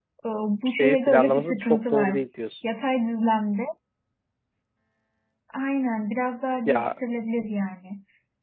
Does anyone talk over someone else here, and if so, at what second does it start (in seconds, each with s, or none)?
0.8 s